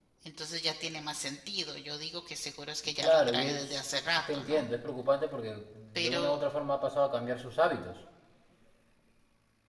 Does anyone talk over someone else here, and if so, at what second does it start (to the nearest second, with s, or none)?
3 s